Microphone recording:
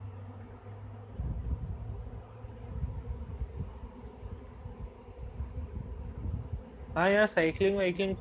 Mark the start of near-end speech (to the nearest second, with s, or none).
7 s